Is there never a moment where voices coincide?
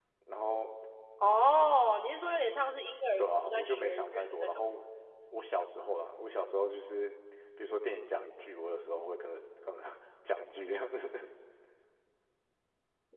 No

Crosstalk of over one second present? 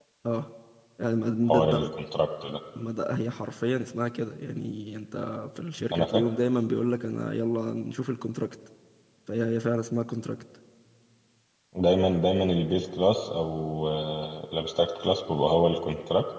No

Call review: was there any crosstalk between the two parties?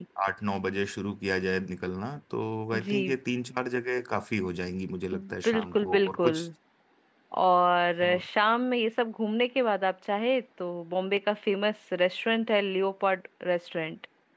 Yes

